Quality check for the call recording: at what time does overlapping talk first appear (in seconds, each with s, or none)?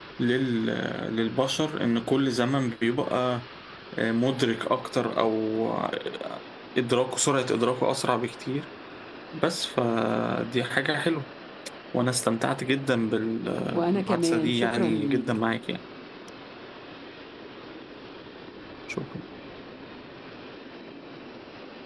13.7 s